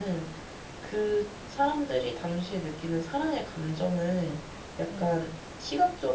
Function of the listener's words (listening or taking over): listening